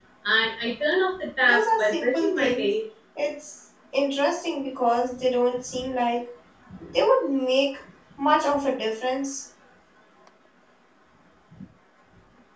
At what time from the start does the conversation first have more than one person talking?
1.4 s

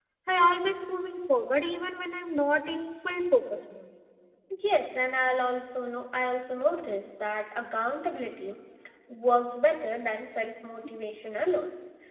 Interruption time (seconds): none

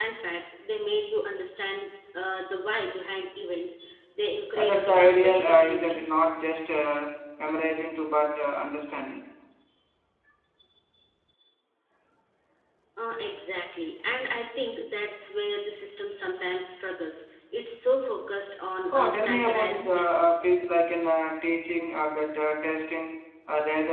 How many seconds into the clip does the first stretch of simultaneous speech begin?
4.6 s

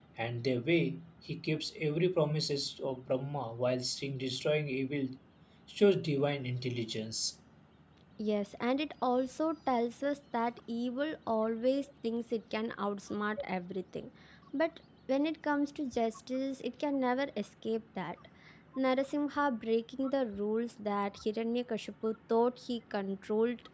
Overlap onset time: none

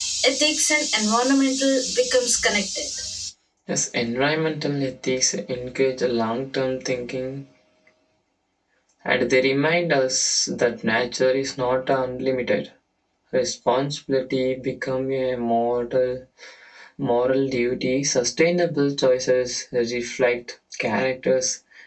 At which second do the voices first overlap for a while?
none

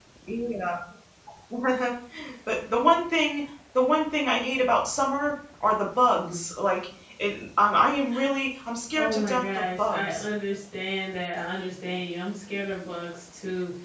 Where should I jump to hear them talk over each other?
8.9 s

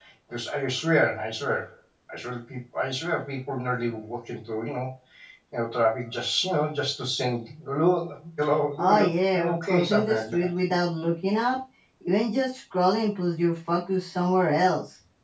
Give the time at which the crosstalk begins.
8.8 s

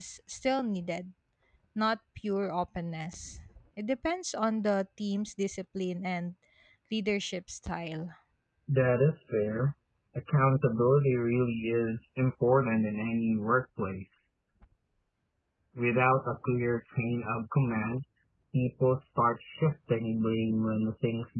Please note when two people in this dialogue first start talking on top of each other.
none

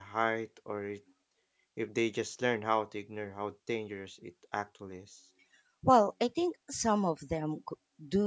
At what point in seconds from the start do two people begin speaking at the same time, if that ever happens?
none

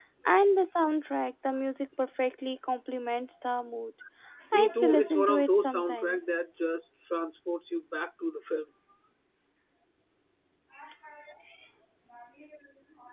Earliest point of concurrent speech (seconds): 4.5 s

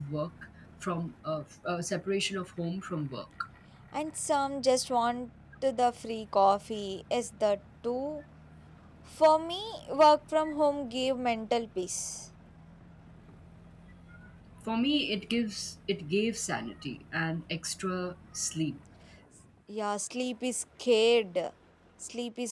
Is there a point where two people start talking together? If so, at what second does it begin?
none

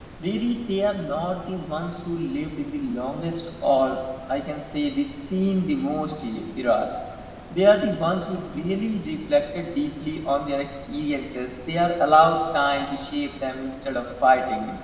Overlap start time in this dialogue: none

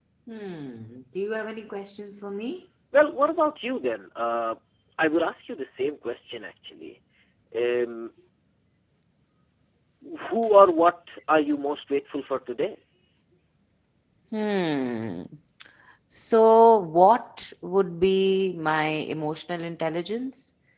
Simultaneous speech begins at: none

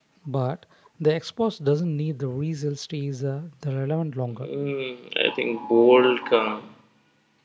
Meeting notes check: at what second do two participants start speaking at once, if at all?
none

